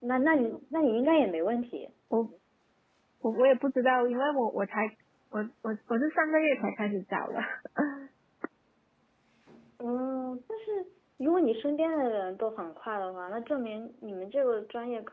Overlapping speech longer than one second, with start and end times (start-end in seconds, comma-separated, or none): none